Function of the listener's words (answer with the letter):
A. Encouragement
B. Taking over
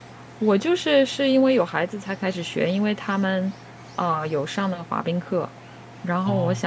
A